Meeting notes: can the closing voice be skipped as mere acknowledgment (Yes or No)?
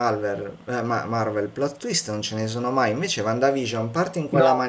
Yes